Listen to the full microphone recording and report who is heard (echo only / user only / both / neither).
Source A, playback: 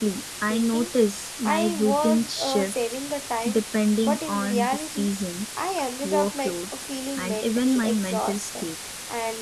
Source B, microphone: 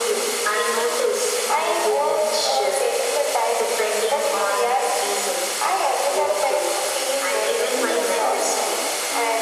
both